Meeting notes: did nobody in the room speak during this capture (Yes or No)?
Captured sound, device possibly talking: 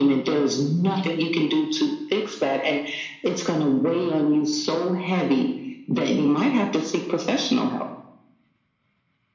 Yes